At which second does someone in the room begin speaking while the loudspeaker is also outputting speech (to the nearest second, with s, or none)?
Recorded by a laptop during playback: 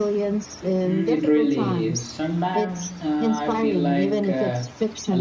1 s